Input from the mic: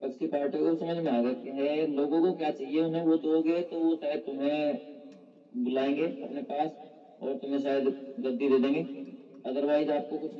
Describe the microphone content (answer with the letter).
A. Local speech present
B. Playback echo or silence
B